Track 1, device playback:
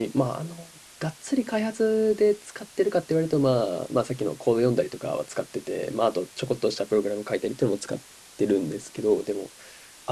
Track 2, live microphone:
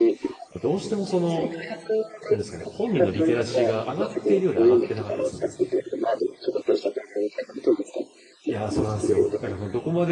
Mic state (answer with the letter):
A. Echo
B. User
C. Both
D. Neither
C